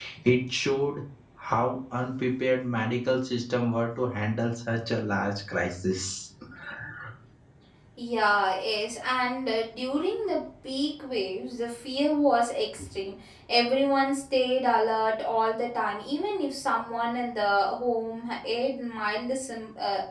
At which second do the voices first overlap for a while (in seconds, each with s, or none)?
none